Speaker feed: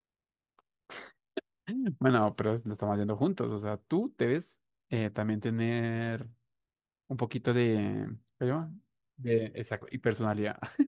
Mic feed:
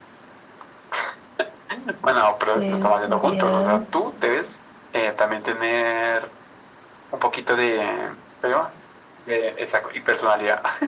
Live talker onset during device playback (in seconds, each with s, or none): 2.5 s